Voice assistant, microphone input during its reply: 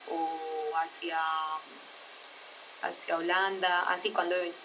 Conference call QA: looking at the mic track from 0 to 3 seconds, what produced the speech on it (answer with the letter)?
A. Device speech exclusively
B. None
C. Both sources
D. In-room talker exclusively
A